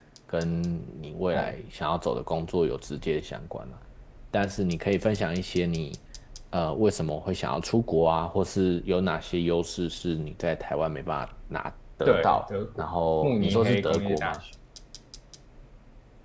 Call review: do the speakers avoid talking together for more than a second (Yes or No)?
No